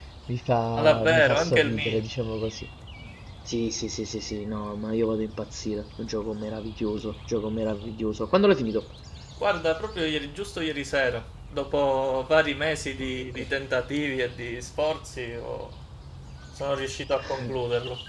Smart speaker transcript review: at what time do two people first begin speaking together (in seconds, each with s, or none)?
0.8 s